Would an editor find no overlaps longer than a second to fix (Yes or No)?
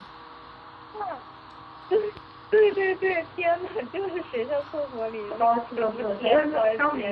No